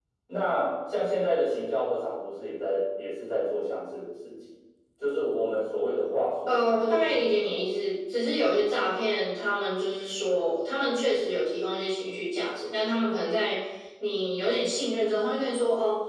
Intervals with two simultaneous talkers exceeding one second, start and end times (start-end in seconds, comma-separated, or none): 6.5-7.7